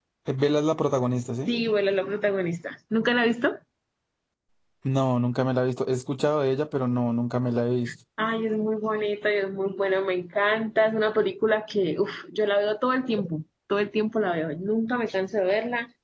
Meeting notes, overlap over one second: none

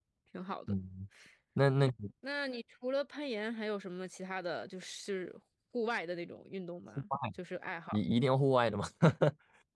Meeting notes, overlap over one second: none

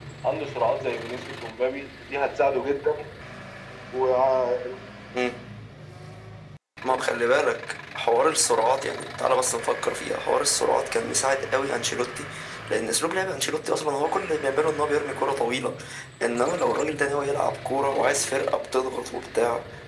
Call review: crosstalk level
none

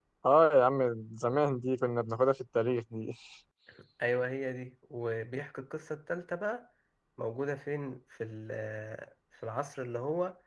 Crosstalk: none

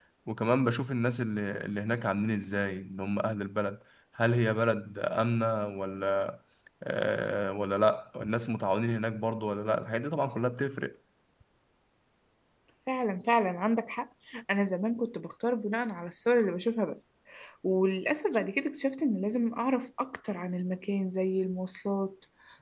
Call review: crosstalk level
none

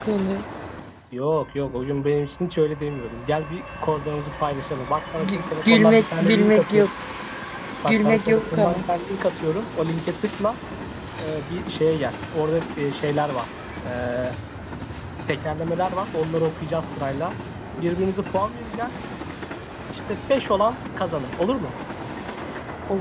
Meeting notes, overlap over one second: present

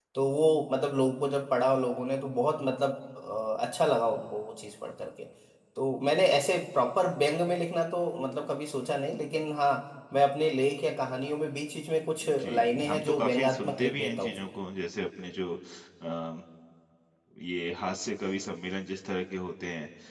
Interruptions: present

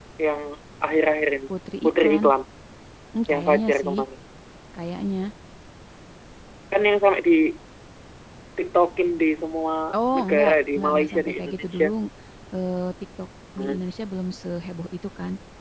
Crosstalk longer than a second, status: present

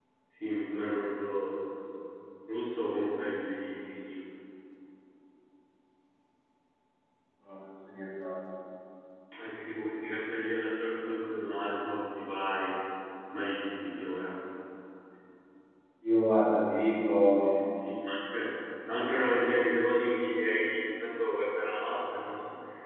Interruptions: none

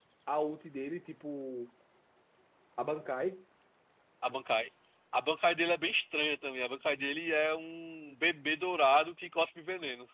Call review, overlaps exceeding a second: none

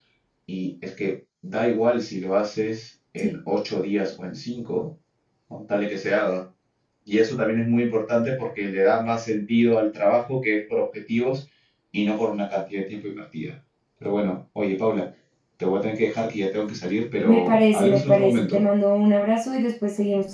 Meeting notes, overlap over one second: present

